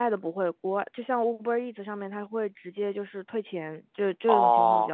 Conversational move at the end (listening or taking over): taking over